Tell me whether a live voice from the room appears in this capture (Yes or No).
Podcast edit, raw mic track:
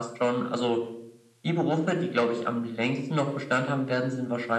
No